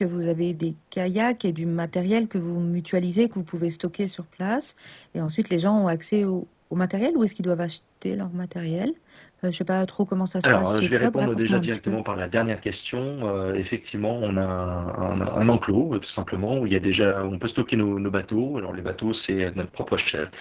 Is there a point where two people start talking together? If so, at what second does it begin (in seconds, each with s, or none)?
10.4 s